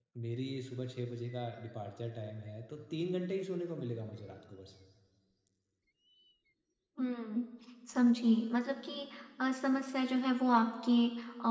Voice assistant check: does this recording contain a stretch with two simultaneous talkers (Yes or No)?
No